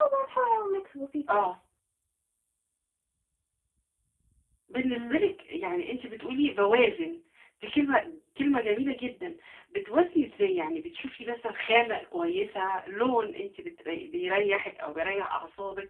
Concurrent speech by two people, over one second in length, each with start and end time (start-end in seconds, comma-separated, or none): none